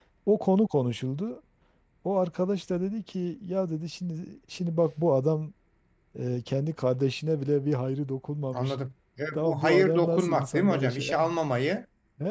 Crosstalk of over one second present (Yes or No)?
Yes